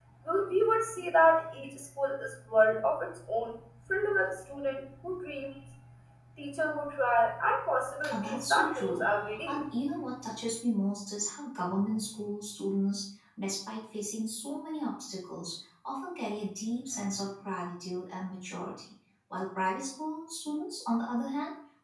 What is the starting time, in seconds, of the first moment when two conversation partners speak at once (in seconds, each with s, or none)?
8.0 s